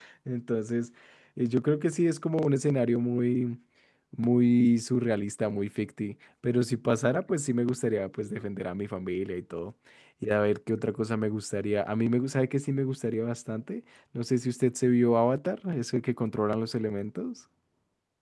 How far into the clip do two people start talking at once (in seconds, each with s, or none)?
none